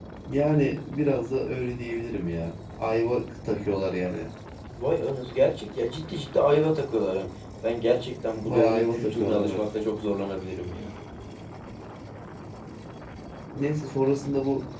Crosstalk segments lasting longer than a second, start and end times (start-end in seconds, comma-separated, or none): 8.4-9.7